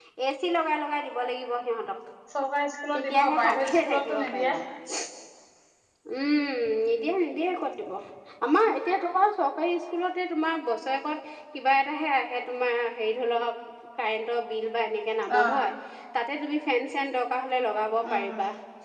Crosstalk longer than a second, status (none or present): present